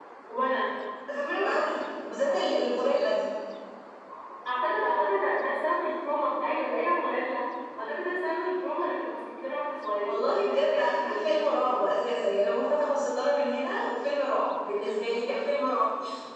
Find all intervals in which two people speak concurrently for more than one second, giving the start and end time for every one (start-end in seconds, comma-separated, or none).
1.4-2.6, 10.0-11.8